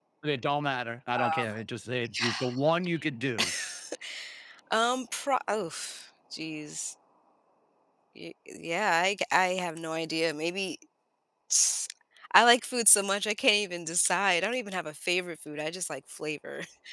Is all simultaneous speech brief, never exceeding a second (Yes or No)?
Yes